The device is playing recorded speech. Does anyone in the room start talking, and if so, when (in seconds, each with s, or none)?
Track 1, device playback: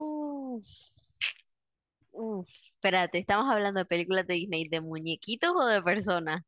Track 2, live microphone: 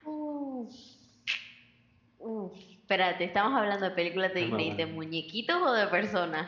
4.4 s